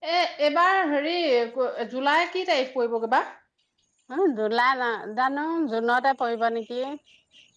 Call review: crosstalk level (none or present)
none